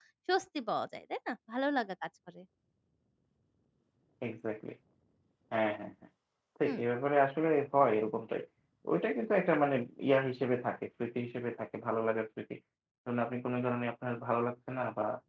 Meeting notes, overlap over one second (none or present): none